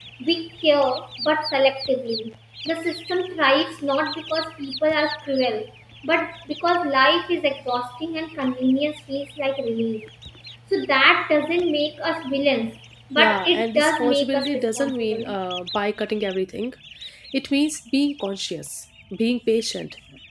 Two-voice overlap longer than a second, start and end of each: 13.2-15.3

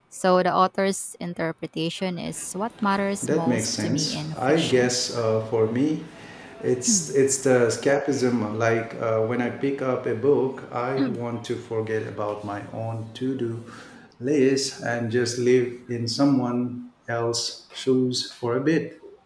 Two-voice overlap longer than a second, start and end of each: 3.2-4.9

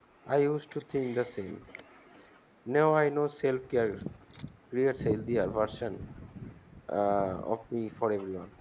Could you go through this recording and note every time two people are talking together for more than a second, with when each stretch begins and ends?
none

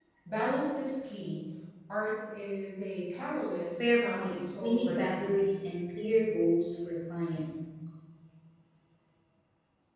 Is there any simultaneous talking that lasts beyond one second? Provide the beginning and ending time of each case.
3.9-5.4

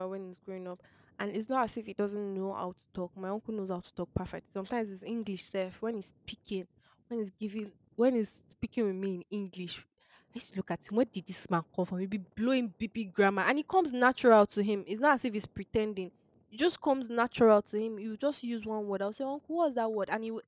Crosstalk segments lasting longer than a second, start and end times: none

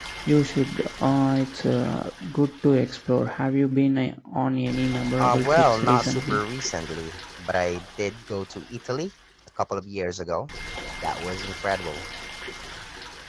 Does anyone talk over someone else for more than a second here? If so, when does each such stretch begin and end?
5.2-6.4

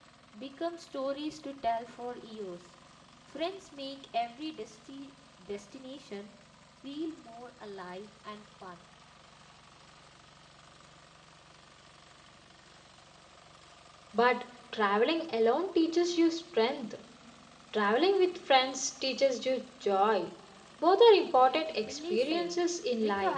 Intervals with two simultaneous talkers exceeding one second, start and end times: 21.4-22.6

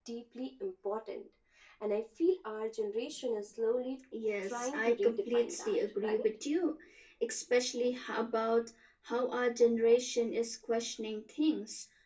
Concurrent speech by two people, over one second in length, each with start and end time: 4.4-6.4

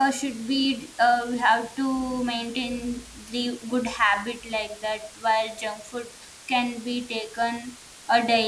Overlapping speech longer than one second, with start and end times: none

